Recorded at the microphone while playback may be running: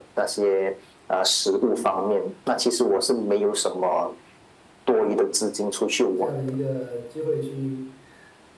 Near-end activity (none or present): present